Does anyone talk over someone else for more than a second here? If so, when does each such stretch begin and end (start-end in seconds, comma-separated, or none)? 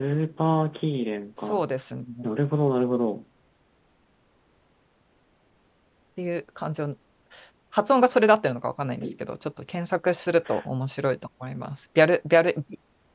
none